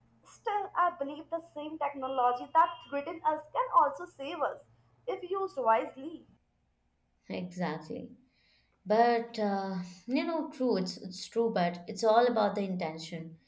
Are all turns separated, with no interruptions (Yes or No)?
Yes